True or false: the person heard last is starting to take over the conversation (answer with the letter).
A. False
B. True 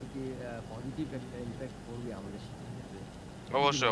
B